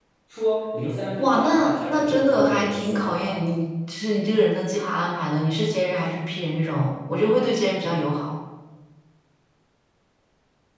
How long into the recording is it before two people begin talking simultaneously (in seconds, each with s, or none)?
1.2 s